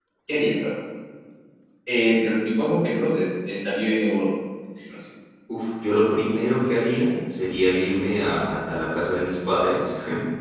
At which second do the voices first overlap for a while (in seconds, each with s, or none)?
none